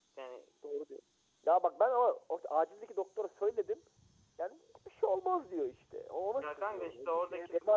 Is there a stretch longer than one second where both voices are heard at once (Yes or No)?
Yes